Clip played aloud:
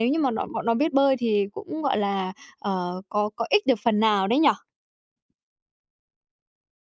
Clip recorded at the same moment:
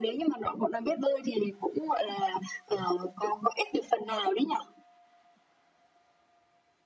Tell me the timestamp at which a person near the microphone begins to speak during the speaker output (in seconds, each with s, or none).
none